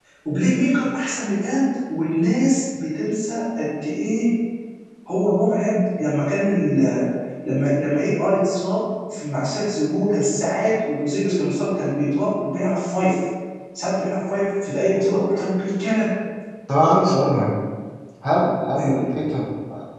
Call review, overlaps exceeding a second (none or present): none